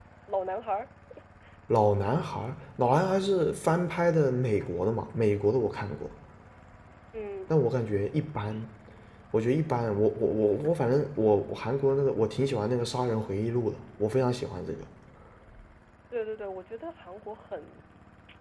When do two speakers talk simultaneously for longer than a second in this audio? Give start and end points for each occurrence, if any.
none

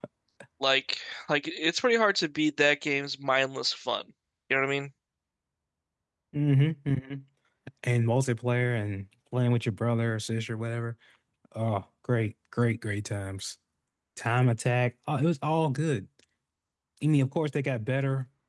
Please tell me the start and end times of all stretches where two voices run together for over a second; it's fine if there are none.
none

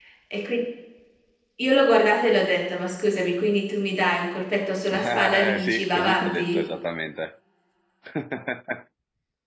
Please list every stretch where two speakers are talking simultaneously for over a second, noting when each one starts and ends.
4.9-6.6

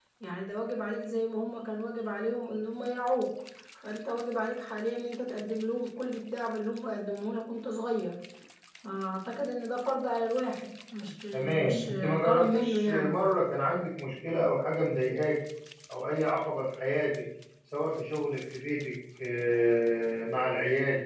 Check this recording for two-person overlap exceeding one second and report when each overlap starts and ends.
11.3-13.2

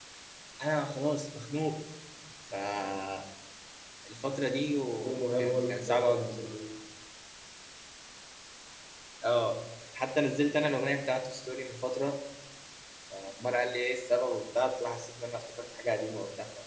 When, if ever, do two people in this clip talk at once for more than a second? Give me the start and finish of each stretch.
4.9-6.5

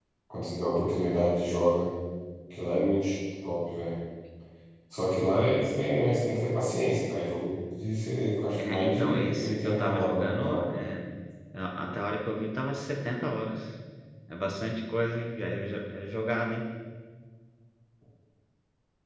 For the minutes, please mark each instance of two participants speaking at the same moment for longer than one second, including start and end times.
8.7-10.7

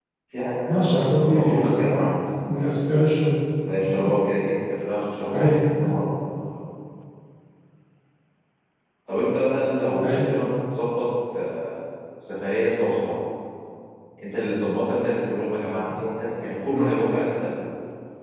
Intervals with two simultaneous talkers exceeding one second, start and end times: 0.7-2.1

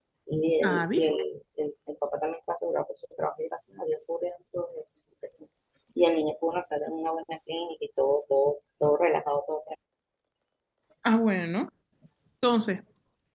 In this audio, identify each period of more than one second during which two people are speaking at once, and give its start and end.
none

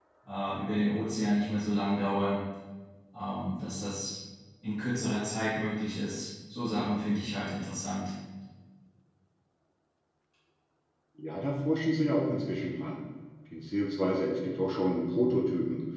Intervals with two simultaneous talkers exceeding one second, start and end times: none

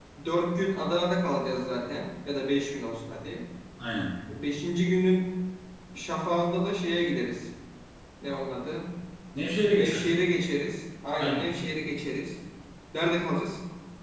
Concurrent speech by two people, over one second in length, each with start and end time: none

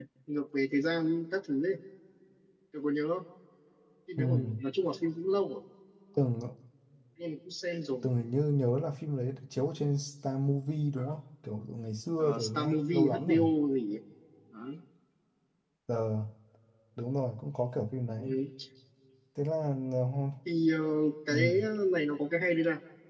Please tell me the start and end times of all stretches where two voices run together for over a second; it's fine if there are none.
12.2-13.4

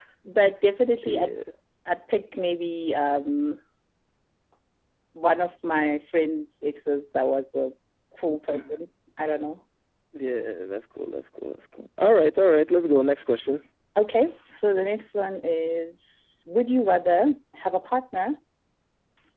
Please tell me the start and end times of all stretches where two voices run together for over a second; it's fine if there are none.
none

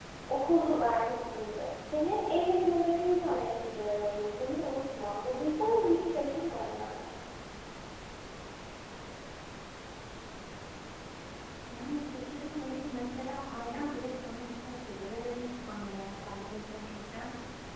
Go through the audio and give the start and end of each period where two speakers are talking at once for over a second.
none

